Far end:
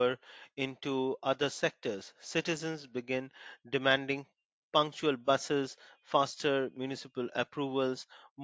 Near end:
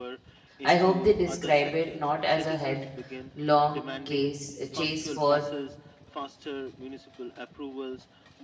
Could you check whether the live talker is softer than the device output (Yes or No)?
No